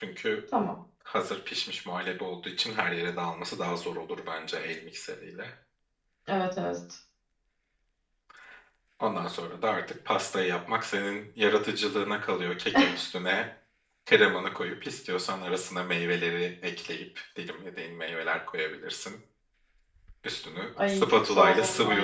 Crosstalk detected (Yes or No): Yes